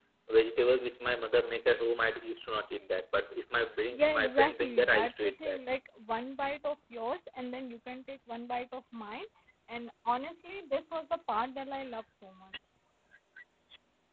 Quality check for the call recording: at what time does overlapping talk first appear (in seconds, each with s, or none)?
3.9 s